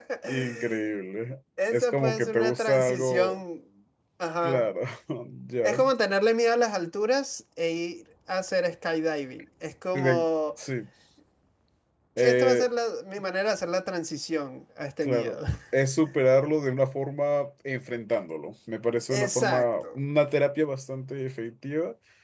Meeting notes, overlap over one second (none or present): present